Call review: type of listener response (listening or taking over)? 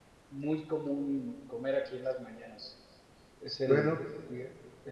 listening